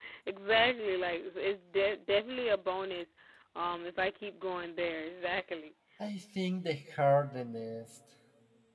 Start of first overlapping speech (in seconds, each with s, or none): none